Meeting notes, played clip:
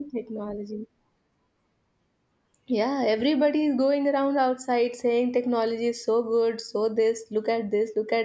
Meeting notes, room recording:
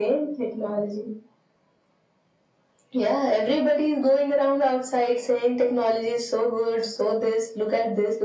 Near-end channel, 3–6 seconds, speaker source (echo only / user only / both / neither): echo only